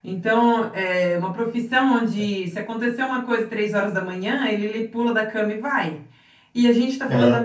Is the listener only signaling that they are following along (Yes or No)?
Yes